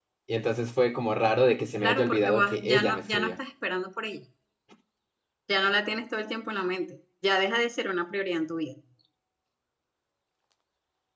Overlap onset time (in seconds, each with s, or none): 1.8 s